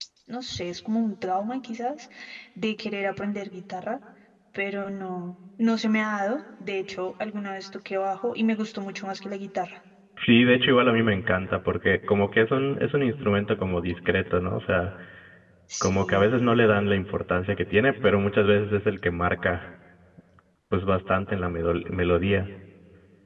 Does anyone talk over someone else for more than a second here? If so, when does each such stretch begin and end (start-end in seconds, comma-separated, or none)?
none